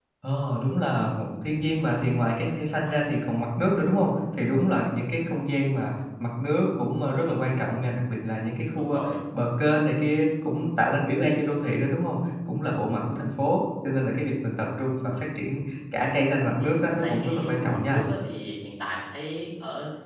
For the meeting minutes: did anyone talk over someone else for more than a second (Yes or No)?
Yes